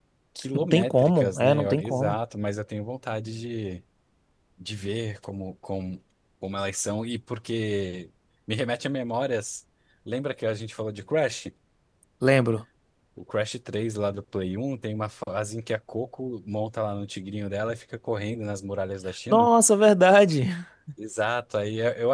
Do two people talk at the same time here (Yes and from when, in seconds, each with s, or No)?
Yes, from 0.6 s